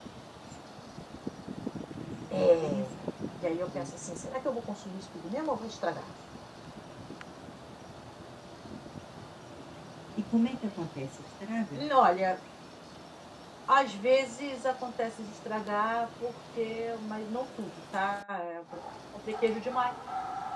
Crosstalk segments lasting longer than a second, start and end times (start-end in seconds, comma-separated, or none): 2.3-4.1